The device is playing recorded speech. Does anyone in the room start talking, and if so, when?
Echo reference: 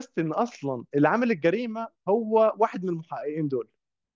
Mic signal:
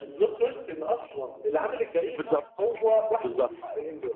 2.1 s

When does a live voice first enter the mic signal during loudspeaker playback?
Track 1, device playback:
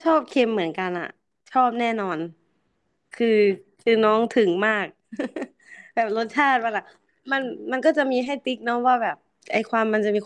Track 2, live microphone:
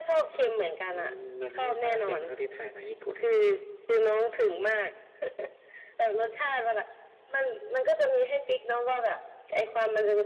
0.8 s

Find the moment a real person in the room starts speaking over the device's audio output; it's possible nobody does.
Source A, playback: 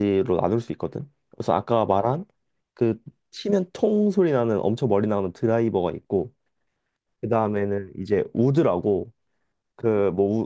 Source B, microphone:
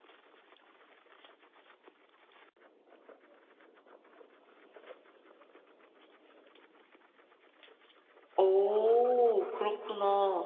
8.4 s

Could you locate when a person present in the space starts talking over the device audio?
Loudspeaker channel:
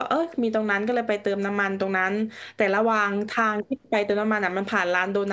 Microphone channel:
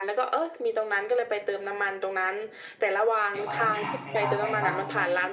3.3 s

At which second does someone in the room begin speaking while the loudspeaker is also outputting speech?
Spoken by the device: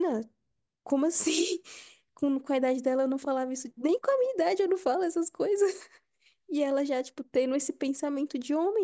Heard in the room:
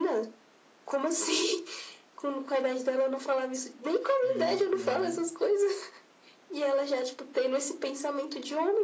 4.2 s

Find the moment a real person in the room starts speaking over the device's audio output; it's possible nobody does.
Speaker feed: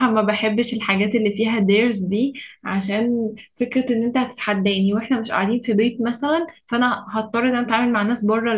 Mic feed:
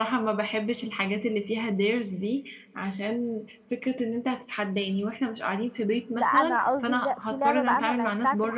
6.1 s

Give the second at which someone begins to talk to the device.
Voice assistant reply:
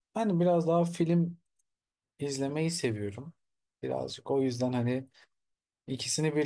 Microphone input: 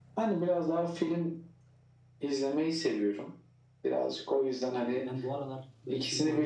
4.8 s

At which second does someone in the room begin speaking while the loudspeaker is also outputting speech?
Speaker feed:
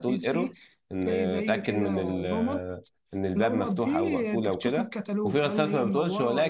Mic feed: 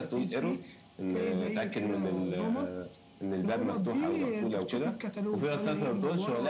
none

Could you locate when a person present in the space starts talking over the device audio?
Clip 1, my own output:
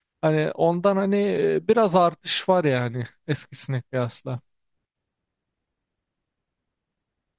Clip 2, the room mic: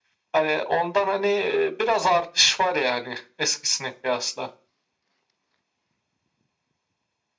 none

